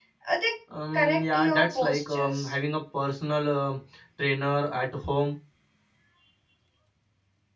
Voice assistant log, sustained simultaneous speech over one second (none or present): present